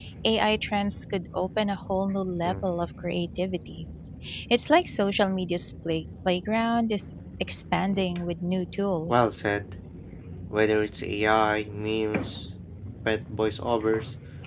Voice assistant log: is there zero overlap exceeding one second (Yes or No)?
Yes